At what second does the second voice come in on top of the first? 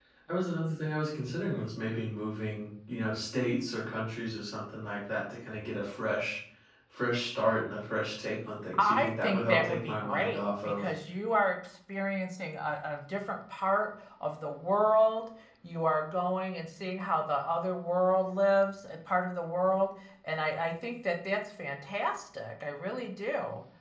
8.7 s

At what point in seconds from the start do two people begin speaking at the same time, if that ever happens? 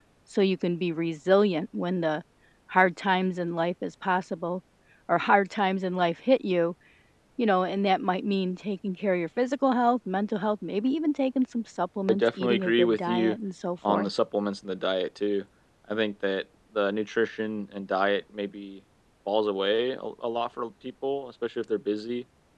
12.1 s

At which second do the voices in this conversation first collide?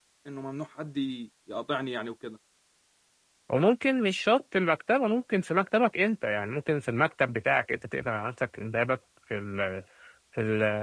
none

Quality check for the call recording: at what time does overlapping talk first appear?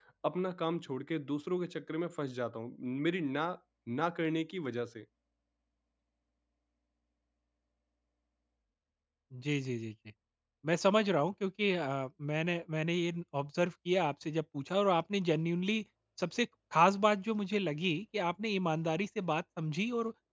none

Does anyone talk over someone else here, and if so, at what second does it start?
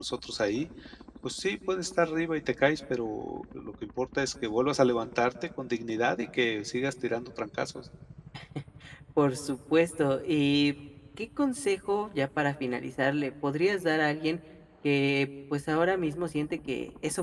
none

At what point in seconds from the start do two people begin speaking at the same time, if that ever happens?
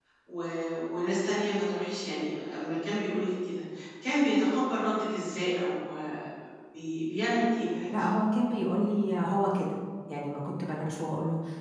none

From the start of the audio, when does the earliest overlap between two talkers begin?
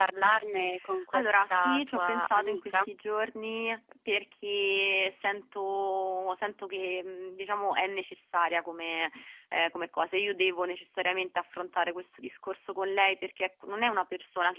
1.1 s

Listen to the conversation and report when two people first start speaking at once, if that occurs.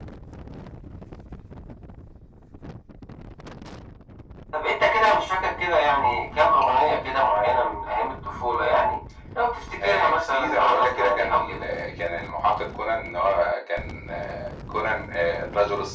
9.8 s

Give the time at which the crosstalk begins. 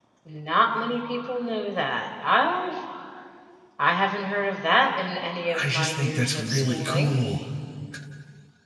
5.5 s

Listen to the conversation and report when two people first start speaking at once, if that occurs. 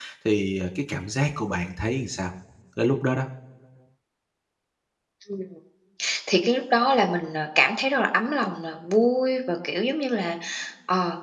none

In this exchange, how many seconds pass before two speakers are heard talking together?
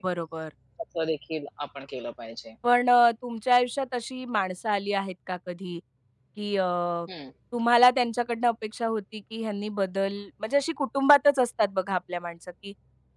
none

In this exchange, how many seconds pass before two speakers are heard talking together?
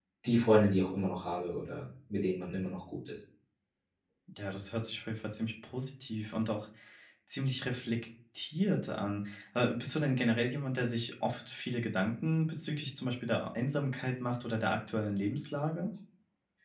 none

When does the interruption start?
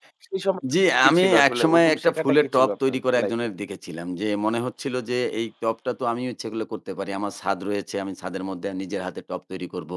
1.0 s

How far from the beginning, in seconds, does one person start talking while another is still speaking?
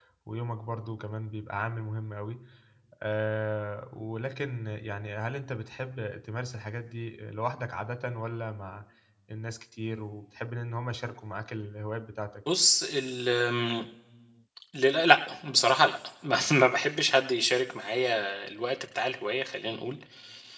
none

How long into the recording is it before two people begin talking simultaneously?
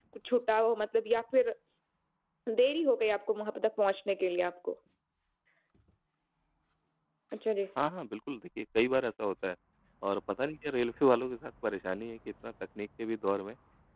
none

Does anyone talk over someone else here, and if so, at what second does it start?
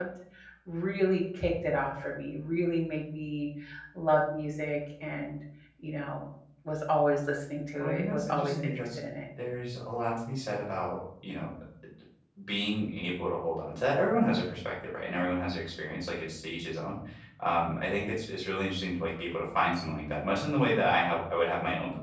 7.8 s

